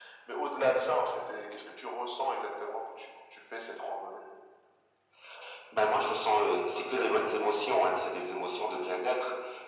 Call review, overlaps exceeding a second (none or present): none